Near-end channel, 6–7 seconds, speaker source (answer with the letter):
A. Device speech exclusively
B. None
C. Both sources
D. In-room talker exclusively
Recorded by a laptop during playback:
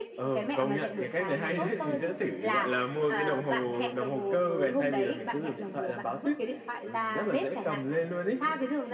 A